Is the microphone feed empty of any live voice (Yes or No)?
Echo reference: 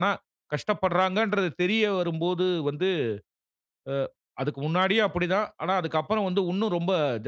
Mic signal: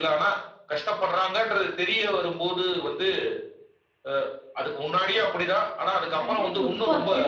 No